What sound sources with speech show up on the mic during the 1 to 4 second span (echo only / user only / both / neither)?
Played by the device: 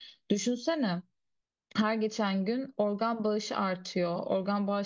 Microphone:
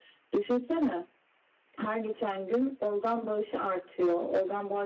echo only